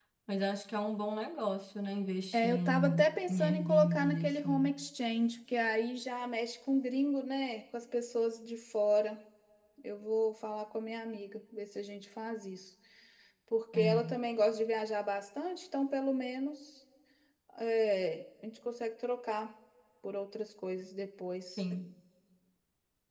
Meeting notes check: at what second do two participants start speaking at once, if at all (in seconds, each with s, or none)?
2.3 s